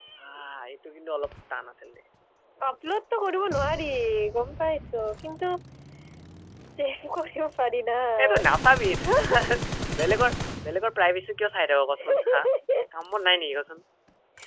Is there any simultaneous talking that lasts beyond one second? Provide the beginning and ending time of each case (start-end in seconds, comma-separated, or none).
none